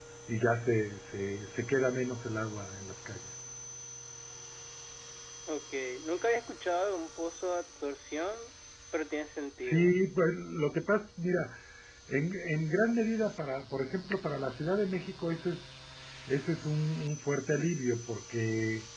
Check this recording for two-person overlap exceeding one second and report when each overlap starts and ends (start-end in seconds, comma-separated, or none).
none